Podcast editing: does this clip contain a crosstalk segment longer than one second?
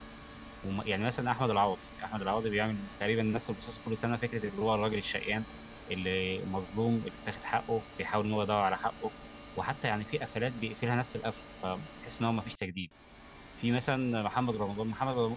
No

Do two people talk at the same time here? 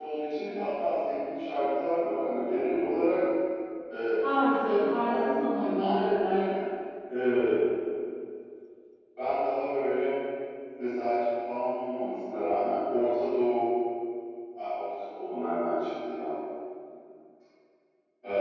Yes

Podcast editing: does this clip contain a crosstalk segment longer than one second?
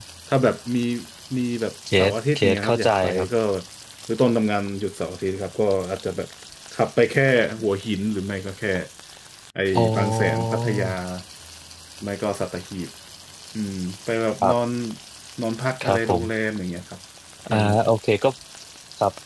Yes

